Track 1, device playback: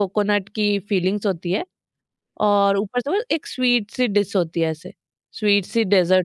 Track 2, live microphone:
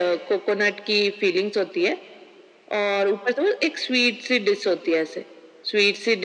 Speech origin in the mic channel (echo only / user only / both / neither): echo only